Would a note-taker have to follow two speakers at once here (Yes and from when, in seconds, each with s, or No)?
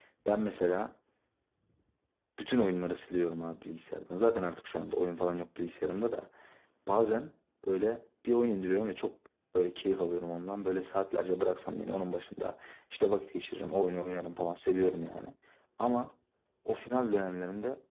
No